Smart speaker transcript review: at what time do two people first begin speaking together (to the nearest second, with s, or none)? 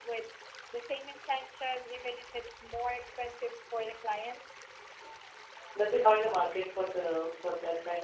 none